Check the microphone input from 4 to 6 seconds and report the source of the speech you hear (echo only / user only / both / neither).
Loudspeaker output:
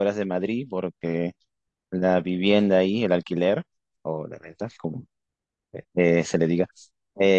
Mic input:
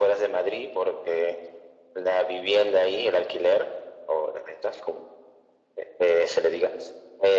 echo only